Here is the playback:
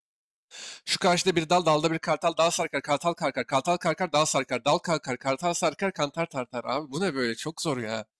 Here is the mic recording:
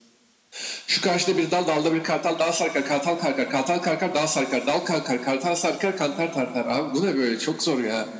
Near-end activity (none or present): none